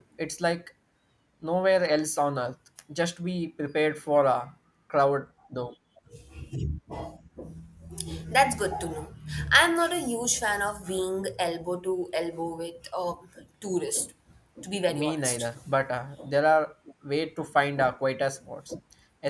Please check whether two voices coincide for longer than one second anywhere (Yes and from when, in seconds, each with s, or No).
No